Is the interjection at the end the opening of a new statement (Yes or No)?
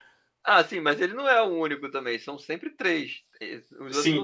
Yes